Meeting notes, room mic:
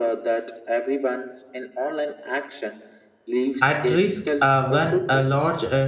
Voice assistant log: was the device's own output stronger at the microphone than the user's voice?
No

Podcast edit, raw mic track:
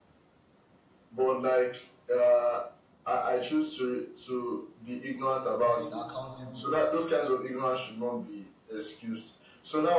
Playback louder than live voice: Yes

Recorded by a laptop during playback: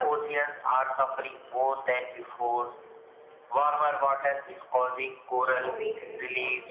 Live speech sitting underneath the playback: Yes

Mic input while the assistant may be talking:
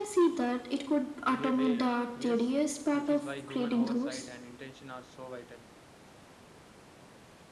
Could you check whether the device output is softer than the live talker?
No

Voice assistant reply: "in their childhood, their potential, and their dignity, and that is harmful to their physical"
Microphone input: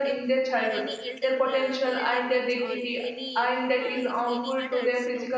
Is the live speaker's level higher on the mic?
No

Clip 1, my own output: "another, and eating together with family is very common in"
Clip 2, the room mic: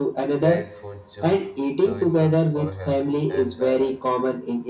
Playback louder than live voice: Yes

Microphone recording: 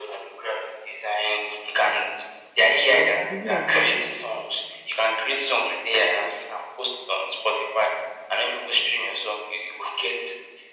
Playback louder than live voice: Yes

